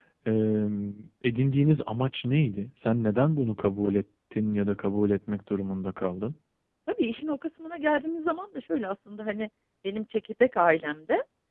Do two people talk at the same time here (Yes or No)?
No